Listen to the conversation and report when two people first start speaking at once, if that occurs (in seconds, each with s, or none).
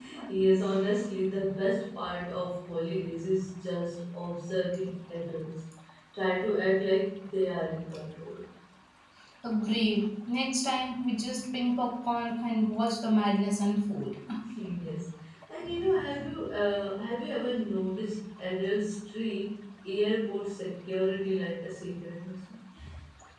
none